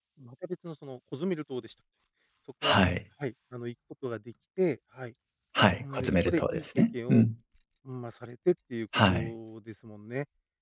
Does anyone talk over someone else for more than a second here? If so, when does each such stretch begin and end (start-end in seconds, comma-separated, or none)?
5.8-7.2